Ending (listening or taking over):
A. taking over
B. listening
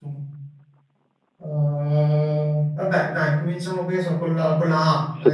A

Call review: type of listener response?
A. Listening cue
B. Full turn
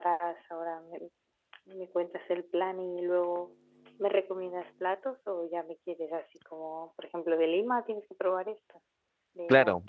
B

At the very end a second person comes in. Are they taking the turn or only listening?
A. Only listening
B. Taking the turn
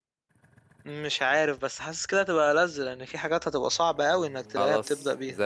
B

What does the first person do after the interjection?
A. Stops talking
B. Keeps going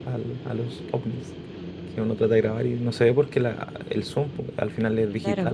B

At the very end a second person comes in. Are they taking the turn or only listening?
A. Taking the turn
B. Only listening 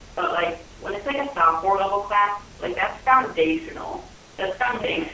B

